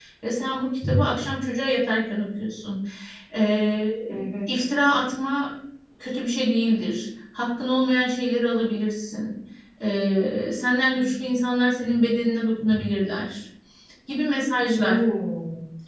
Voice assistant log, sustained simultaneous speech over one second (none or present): none